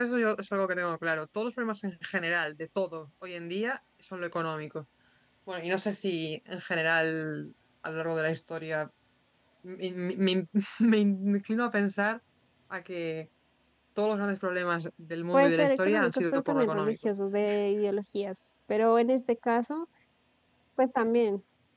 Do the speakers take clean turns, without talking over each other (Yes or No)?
No